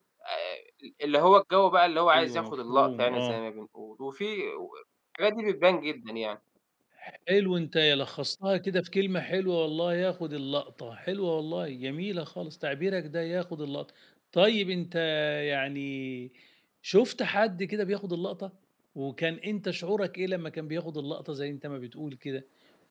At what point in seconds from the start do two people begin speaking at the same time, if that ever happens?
2.1 s

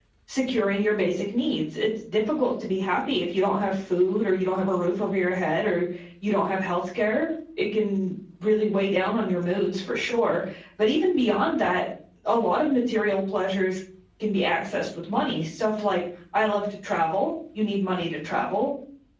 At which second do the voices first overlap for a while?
none

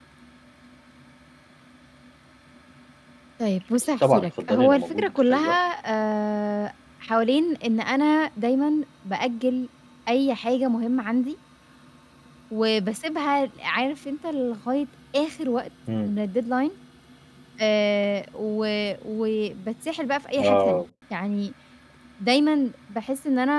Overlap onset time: 4.0 s

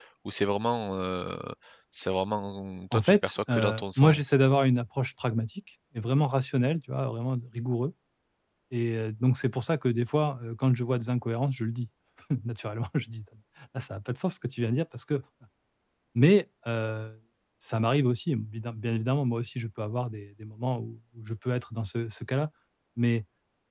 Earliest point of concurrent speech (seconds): 2.9 s

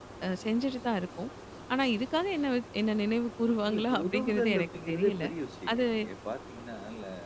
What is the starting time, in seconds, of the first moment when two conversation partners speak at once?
3.7 s

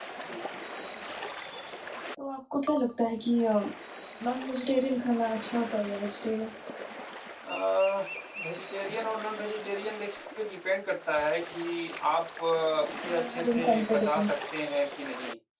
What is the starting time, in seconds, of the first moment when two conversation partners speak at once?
13.1 s

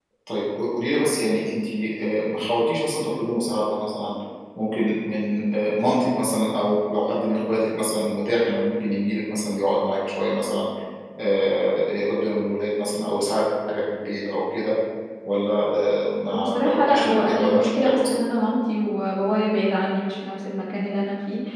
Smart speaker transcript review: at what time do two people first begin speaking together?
16.2 s

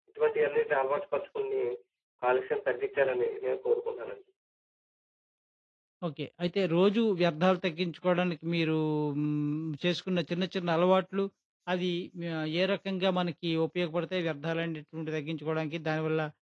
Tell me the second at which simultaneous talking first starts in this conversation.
none

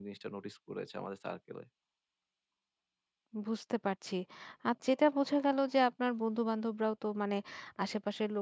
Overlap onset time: none

